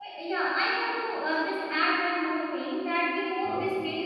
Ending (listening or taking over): listening